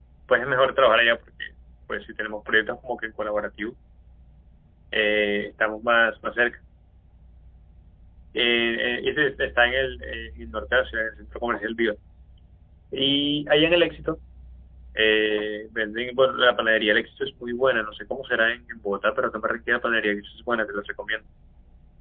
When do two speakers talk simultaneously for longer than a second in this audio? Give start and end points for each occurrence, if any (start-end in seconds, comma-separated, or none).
none